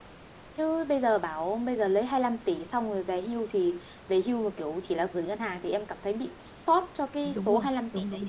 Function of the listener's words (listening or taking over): taking over